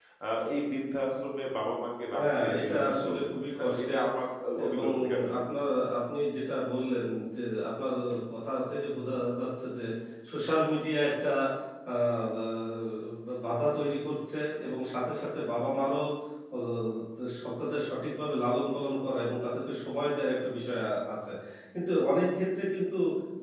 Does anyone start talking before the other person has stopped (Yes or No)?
Yes